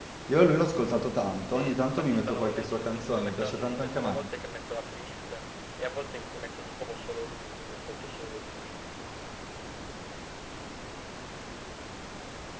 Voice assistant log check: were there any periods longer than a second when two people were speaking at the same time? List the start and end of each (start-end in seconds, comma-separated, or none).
1.4-4.2